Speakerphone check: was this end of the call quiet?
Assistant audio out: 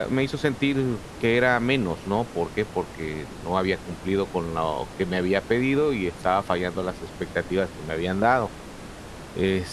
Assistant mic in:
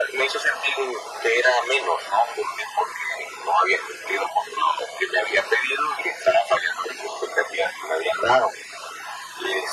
Yes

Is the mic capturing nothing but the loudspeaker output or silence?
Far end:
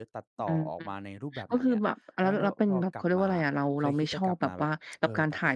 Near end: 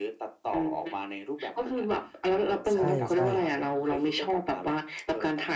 No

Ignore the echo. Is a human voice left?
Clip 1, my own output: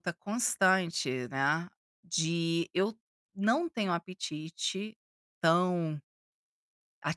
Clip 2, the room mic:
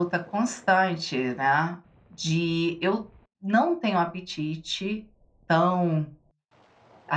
No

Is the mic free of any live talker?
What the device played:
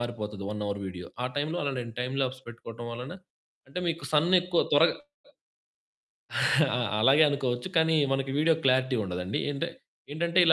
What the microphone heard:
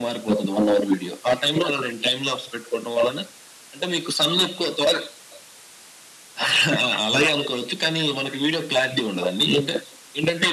Yes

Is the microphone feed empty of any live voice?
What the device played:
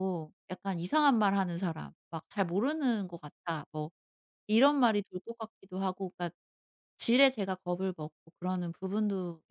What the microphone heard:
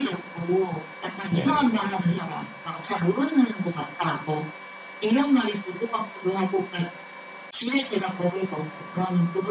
No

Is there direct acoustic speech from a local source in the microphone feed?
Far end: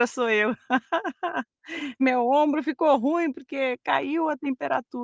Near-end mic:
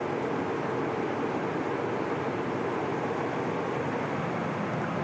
No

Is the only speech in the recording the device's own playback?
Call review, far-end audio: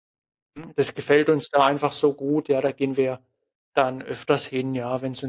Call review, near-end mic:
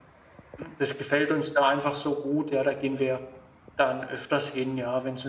Yes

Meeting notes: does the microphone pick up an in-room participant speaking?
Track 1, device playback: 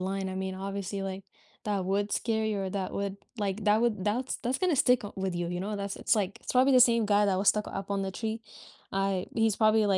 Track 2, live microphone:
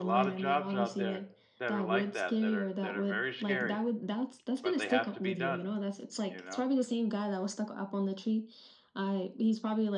Yes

